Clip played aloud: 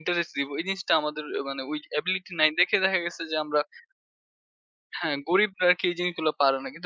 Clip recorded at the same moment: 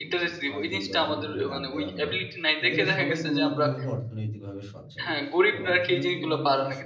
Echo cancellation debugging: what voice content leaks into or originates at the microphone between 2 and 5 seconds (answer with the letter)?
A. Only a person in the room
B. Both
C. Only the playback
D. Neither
B